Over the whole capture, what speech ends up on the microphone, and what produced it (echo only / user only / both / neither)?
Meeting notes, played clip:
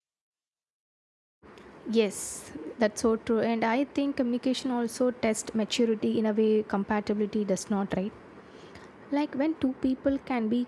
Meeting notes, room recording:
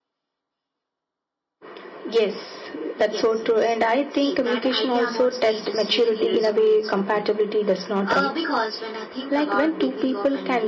both